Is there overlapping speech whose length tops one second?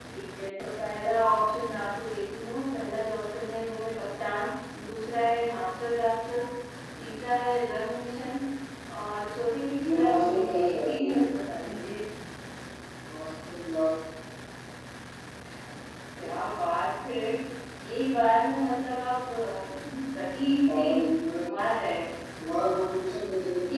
Yes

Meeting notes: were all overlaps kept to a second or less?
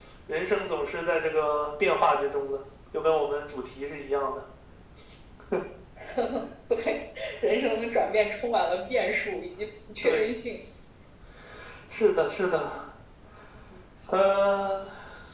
Yes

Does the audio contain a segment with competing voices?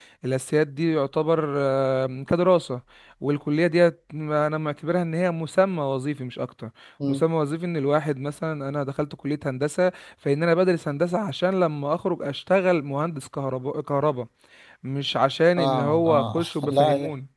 Yes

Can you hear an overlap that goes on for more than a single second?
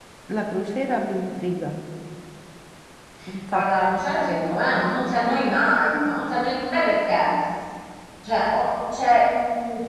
No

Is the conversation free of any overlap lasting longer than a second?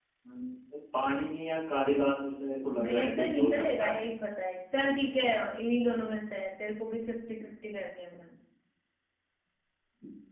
No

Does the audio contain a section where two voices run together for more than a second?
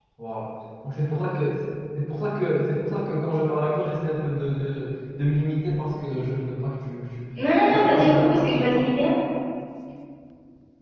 Yes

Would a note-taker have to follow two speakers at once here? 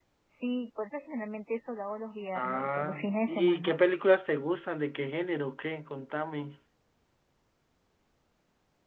Yes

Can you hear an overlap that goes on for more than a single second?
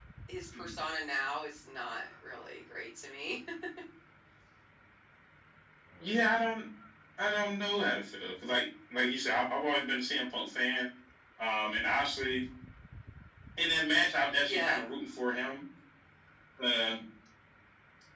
No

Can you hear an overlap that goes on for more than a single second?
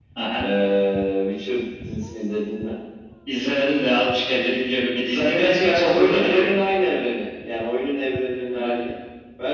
Yes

